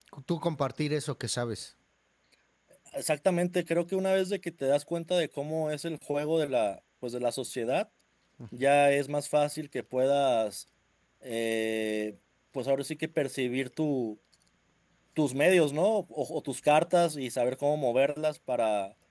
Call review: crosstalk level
none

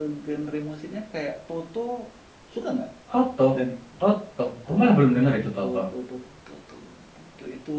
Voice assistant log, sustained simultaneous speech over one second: none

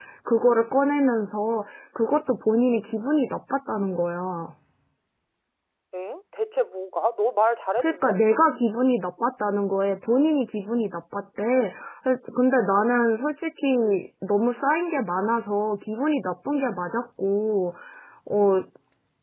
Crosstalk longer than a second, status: none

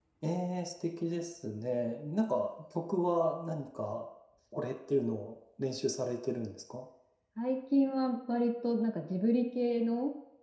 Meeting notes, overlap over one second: none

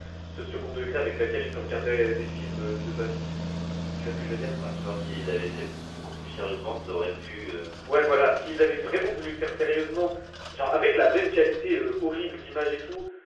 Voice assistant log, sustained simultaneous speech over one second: none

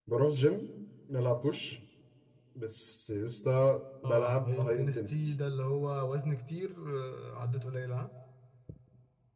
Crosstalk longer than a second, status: present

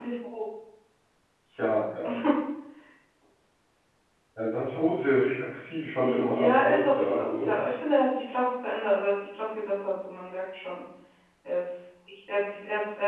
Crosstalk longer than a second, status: present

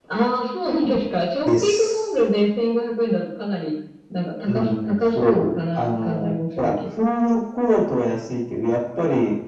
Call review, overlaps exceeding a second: present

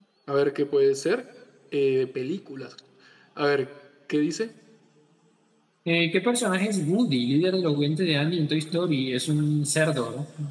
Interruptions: none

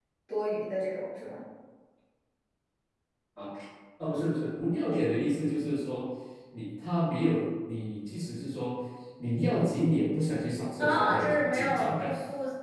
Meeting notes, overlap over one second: present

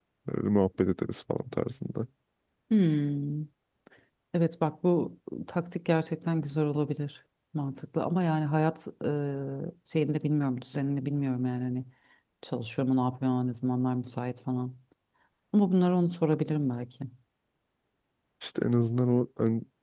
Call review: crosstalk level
none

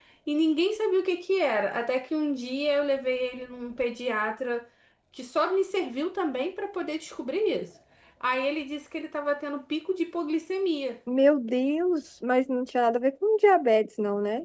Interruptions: none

